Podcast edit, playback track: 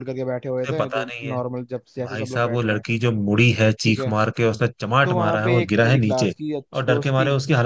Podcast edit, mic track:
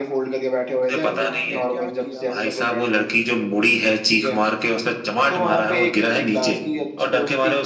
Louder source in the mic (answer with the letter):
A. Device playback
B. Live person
A